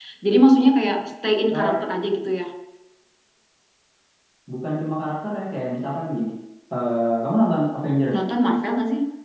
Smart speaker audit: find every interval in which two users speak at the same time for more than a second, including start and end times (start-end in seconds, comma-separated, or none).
none